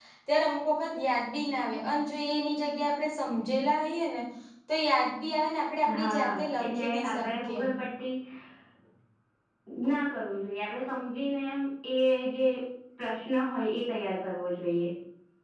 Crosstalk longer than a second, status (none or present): present